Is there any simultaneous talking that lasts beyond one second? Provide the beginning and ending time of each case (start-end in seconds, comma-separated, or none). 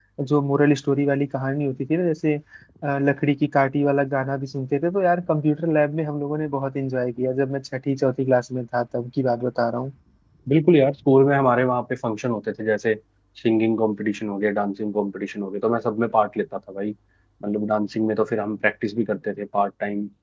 none